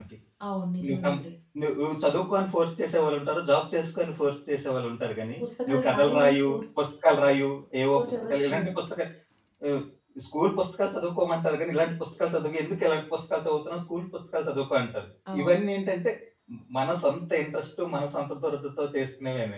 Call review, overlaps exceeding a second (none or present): present